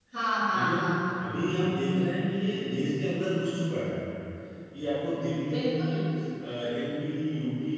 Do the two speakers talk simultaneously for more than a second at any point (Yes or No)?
No